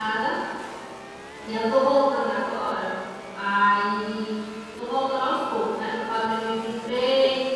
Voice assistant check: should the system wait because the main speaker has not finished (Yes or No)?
Yes